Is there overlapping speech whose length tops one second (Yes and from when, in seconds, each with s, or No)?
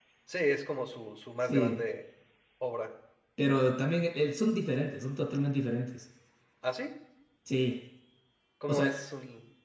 No